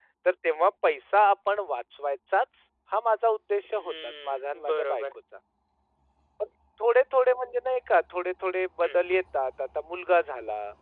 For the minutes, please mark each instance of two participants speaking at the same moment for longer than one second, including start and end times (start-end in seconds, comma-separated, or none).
3.8-5.0